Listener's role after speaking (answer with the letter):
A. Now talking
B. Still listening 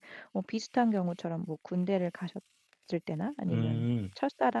B